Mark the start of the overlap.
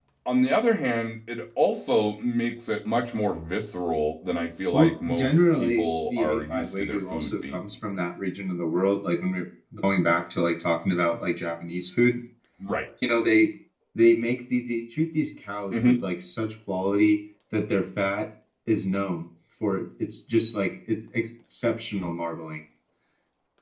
4.7 s

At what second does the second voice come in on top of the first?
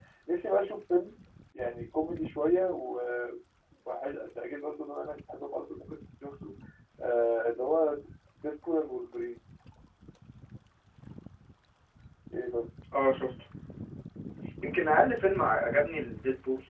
none

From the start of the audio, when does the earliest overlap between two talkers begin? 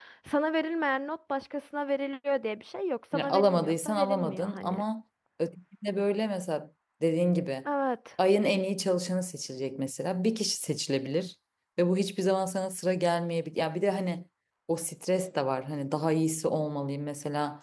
3.1 s

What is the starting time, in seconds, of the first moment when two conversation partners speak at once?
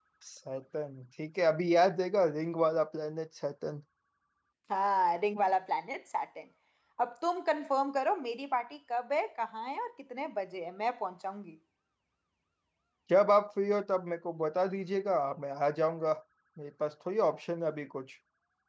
none

